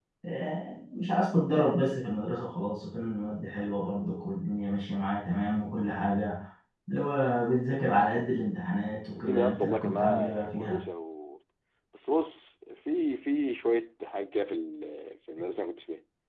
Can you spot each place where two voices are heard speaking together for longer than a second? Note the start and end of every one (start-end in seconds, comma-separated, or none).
9.2-10.8